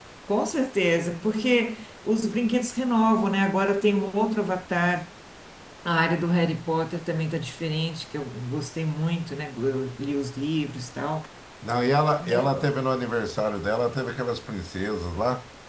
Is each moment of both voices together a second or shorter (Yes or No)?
Yes